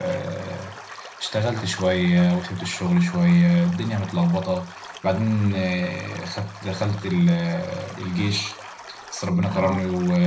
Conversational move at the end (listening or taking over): listening